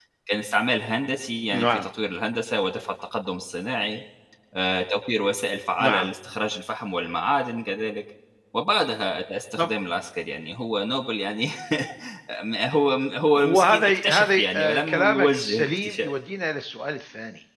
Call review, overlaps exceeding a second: present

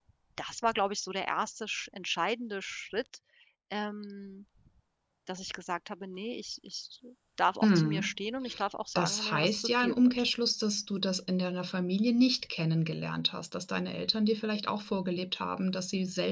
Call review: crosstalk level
present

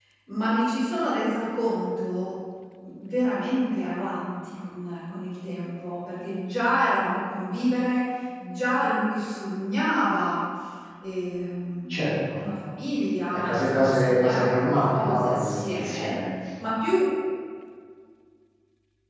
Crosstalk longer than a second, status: present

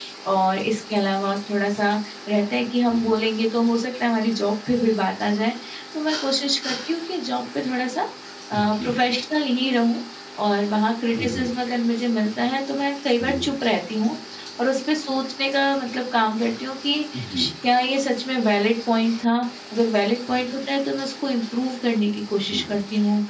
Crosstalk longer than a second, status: none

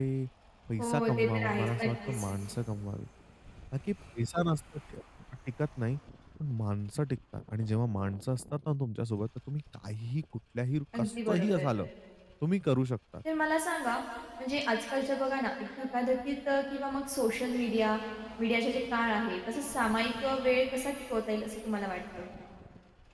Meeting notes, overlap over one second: present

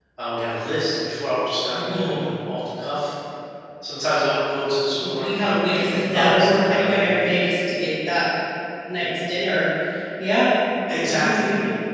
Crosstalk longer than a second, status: present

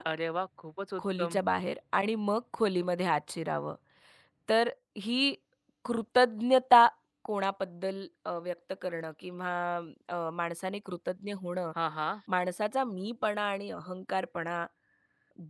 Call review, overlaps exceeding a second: none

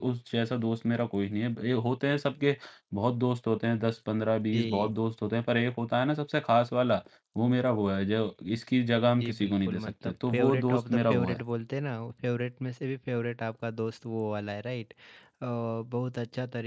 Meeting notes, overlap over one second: present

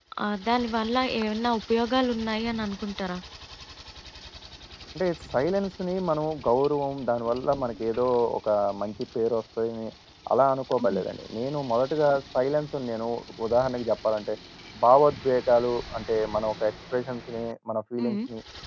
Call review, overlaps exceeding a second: none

